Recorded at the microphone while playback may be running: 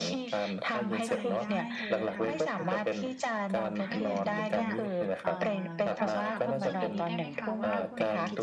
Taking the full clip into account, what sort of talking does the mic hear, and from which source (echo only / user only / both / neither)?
both